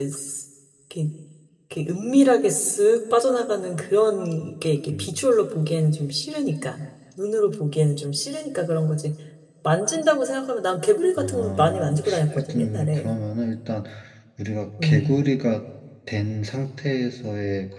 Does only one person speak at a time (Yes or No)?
No